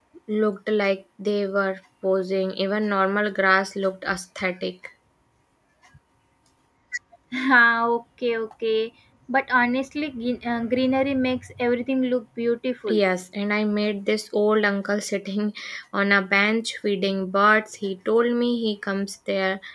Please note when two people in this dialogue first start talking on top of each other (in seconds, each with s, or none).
none